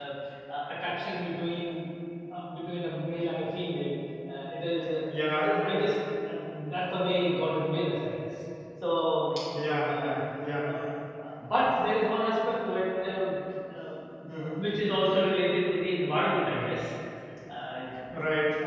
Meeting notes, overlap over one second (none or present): none